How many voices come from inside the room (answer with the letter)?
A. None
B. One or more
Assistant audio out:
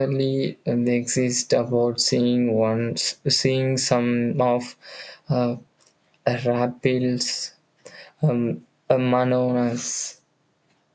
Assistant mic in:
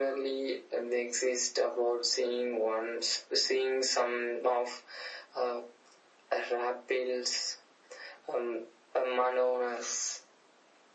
A